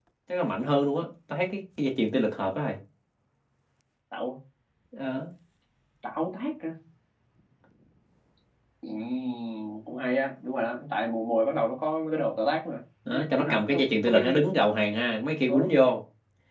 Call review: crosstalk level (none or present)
present